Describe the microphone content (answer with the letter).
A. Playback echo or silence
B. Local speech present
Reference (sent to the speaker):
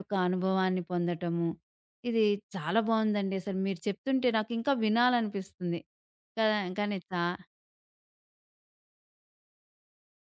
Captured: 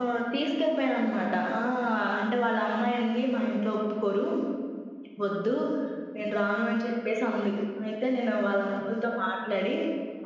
B